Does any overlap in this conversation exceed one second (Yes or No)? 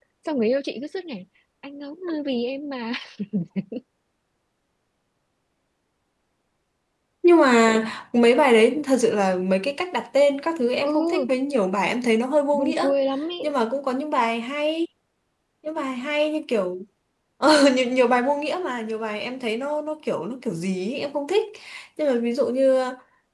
No